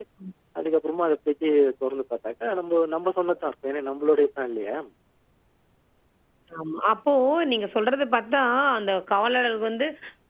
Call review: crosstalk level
none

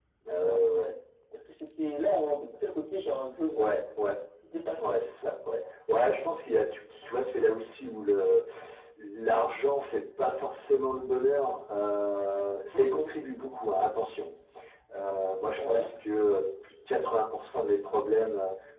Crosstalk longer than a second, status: none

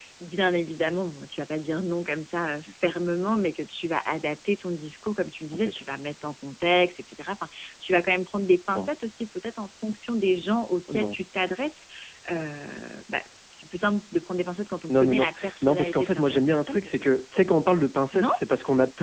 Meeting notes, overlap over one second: present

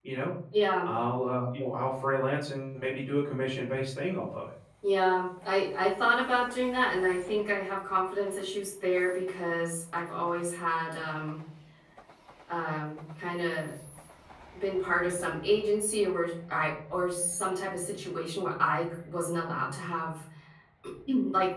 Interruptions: none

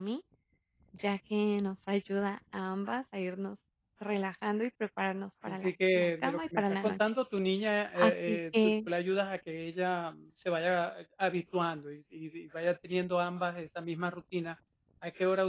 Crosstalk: present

